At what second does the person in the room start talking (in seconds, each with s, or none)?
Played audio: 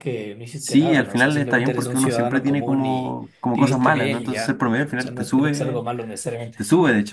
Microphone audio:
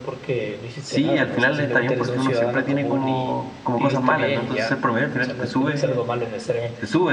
none